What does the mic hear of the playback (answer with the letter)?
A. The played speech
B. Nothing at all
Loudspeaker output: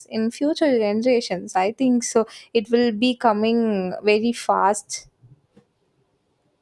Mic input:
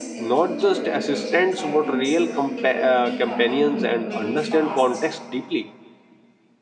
A